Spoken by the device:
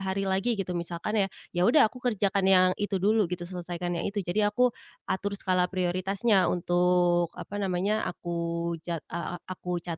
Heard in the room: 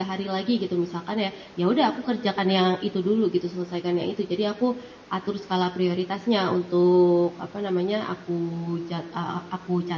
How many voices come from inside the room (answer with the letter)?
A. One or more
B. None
B